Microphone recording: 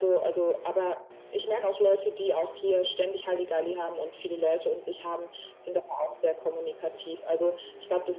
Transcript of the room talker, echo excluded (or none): none